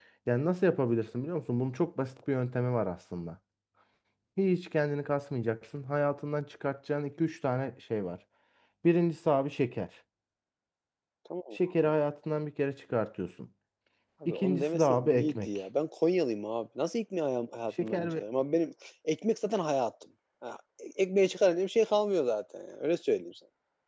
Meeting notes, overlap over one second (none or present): present